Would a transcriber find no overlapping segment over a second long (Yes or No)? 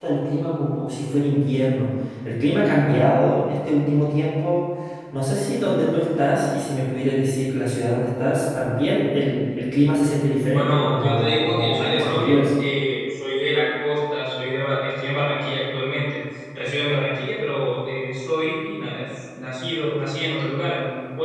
No